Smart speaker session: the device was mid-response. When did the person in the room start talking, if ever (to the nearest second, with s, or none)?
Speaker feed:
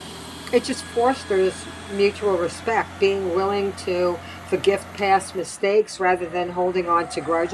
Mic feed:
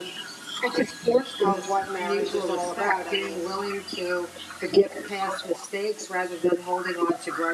1 s